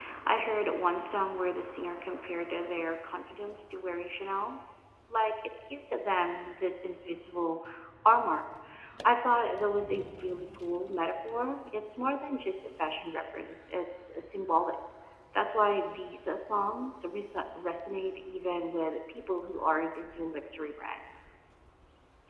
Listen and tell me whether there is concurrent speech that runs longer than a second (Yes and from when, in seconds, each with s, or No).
No